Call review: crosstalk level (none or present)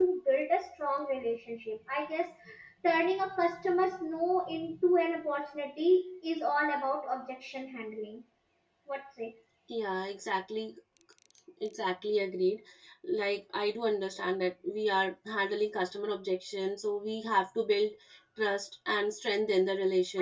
none